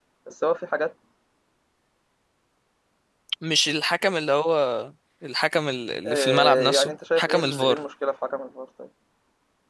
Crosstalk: present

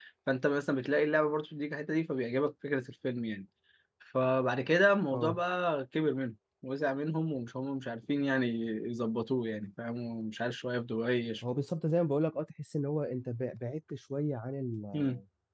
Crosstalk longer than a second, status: none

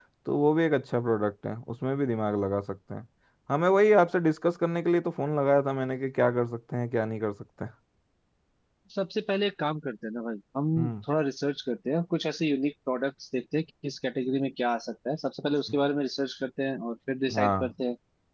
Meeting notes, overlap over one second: none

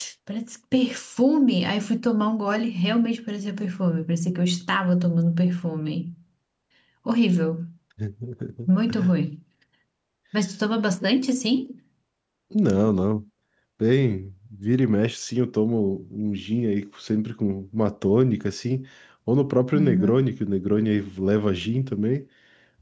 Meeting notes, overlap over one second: none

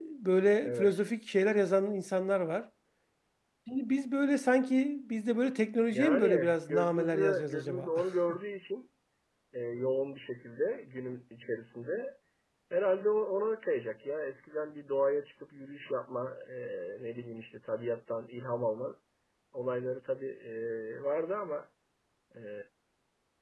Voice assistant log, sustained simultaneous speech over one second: present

